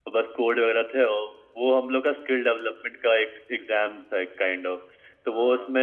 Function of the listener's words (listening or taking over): listening